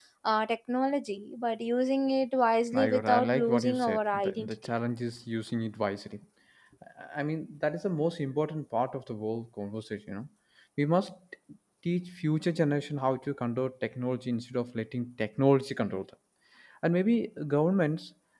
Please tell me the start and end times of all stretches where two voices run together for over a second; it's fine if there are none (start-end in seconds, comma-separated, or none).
2.7-4.5